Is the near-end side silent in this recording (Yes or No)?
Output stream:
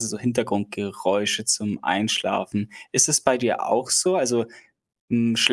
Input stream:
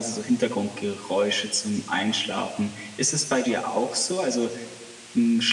Yes